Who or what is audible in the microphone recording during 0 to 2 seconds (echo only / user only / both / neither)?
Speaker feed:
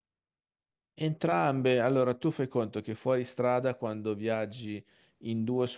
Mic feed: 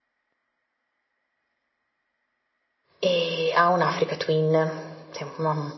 neither